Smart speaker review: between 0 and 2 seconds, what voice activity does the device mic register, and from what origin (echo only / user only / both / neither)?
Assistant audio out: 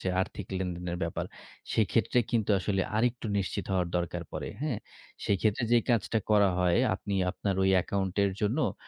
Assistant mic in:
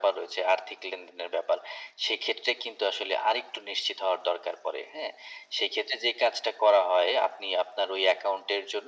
echo only